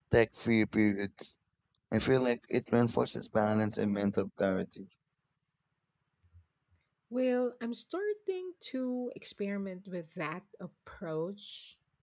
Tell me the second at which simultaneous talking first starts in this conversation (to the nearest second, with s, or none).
none